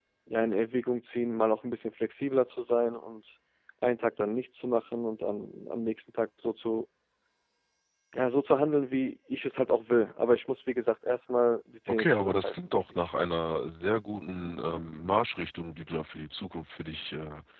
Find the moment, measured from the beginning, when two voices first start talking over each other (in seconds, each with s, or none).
11.9 s